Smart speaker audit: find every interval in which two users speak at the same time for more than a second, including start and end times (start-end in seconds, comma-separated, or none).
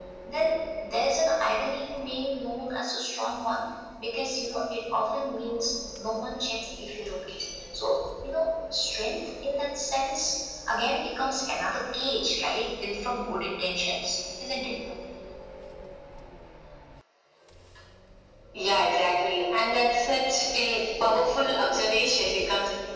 none